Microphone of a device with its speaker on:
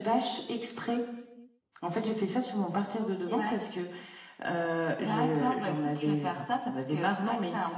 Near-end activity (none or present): present